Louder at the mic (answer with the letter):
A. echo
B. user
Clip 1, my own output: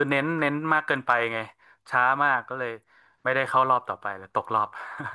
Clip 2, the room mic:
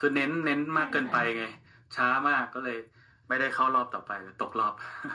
A